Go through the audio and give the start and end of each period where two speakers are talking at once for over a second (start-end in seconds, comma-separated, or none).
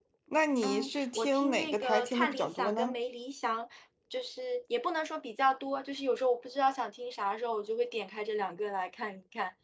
0.6-3.0